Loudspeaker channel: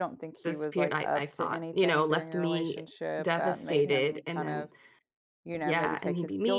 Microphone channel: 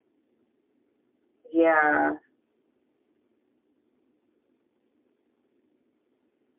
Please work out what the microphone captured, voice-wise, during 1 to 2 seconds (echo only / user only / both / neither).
user only